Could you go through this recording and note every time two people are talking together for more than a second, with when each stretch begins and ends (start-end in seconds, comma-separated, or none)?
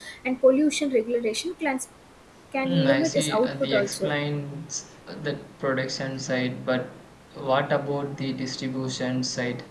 2.7-4.1